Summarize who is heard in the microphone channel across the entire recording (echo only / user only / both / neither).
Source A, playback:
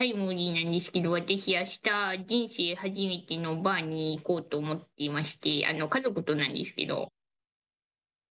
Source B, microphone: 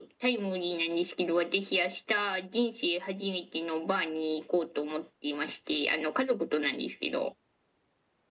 echo only